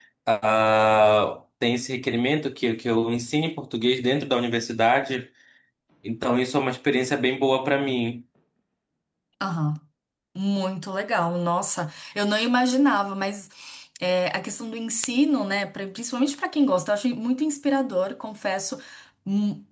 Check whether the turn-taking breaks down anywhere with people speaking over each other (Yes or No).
No